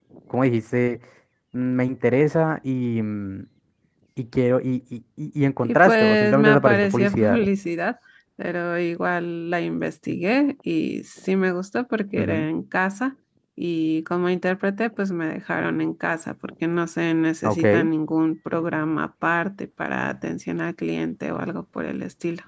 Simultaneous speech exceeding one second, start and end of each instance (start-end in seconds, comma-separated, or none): 5.6-7.4